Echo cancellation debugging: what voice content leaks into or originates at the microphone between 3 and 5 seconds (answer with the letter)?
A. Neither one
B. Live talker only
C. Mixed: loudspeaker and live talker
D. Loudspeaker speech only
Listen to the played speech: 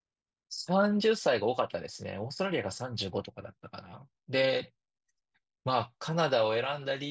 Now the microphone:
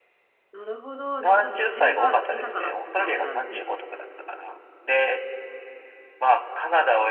C